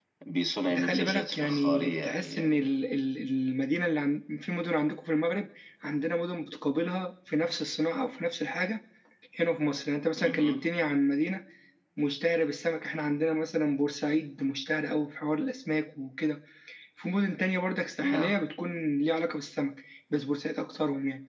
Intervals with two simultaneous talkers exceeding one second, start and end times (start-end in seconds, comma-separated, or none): 0.7-2.6